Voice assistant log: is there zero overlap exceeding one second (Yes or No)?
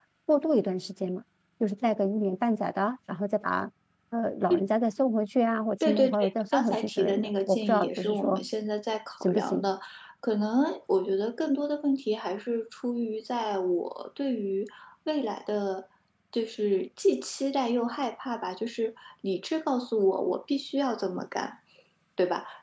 No